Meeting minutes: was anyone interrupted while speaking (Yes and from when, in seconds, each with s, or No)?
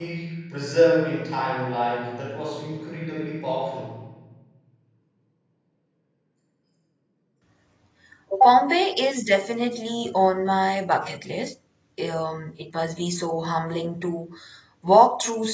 No